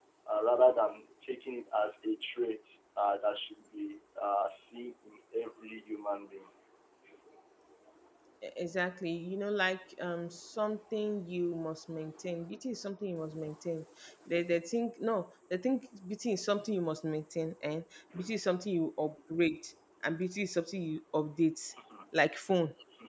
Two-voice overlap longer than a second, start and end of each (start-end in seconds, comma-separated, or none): none